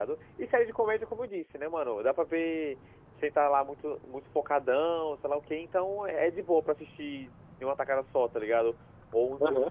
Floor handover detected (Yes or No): No